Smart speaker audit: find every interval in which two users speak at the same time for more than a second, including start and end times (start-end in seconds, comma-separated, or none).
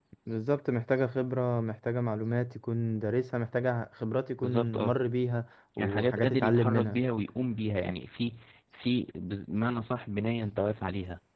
5.8-7.0